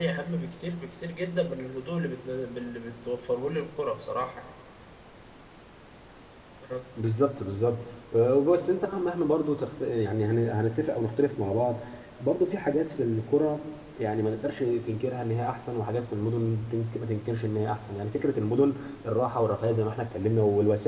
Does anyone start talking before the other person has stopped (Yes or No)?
No